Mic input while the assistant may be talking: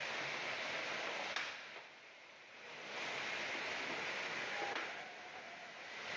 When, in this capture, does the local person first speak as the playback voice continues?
none

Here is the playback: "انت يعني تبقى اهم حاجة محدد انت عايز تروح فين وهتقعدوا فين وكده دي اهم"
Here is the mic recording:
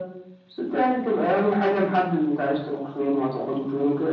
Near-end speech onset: none

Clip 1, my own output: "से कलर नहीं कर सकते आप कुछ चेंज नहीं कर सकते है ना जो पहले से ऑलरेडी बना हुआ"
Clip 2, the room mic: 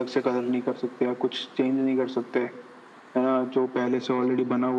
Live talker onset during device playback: none

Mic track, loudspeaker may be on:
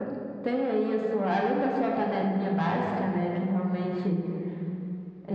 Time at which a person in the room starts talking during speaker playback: none

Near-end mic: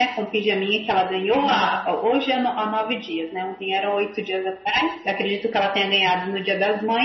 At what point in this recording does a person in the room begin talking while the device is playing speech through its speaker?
1.3 s

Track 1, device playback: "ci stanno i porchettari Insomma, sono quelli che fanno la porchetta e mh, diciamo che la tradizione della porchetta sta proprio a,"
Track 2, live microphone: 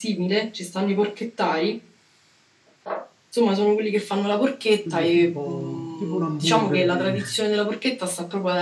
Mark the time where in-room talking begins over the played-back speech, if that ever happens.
4.8 s

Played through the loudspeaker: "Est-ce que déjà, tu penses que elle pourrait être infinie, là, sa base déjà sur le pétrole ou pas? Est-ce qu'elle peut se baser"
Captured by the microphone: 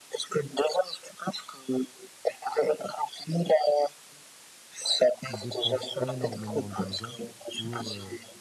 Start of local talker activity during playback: 5.3 s

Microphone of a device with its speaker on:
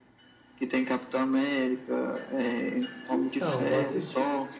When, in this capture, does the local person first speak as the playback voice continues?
3.1 s

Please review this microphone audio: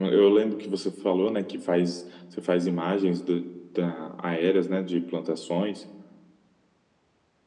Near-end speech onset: none

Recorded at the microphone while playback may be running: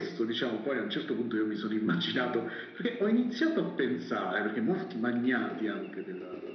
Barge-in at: none

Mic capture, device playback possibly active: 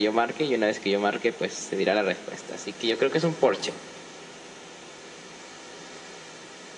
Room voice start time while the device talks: none

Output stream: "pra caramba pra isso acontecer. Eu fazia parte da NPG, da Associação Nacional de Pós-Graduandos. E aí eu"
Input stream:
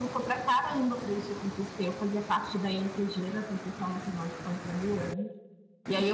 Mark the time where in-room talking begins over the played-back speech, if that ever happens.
none

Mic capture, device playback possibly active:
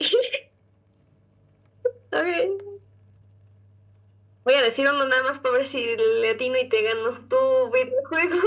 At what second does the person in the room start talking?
none

